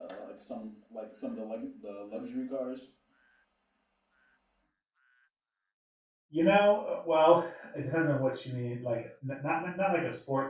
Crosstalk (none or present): none